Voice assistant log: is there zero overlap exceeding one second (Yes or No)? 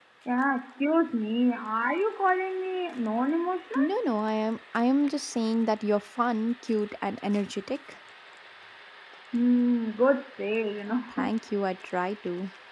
Yes